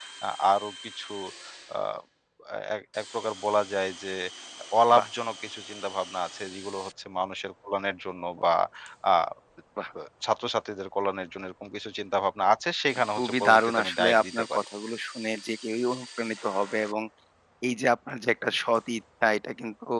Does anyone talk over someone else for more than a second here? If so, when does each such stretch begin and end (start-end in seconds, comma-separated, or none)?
13.1-14.6